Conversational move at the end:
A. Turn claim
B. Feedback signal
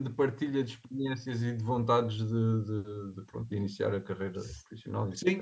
A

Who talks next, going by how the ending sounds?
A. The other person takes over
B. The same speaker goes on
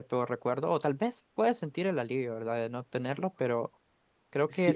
A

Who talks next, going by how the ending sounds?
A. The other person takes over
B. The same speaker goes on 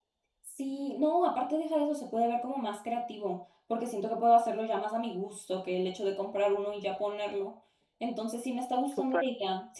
B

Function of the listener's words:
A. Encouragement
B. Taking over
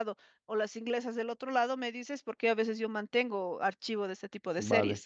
B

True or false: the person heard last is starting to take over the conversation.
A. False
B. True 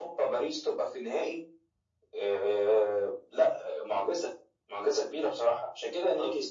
B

